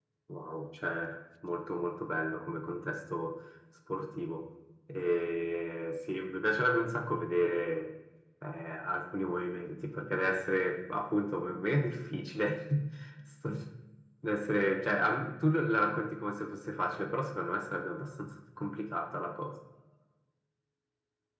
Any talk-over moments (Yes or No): No